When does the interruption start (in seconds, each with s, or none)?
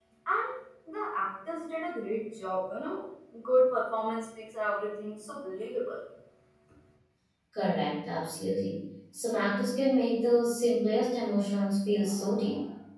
none